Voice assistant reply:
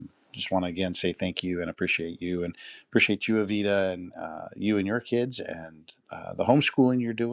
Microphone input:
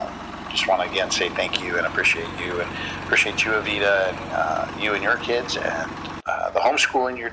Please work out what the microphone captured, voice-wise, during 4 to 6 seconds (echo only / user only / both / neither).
echo only